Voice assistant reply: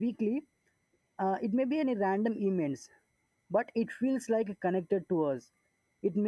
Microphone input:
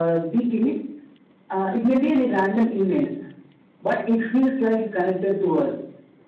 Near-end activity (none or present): none